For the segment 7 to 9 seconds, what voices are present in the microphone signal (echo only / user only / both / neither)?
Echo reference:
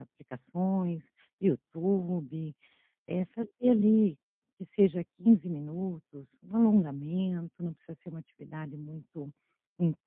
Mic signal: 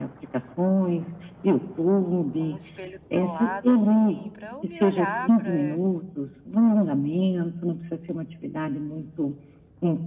echo only